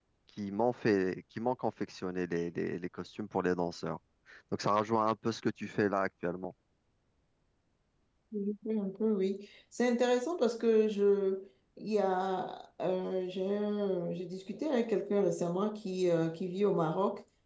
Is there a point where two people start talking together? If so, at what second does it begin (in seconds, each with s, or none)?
none